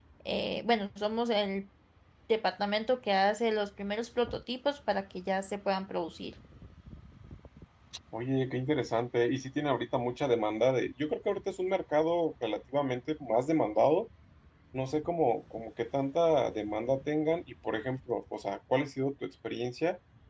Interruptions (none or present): none